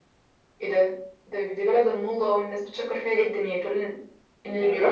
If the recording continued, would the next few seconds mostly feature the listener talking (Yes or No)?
Yes